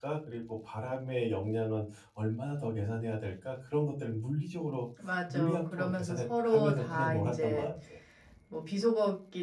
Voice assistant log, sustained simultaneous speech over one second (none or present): present